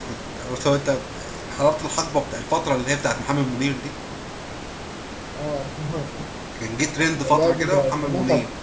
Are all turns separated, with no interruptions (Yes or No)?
No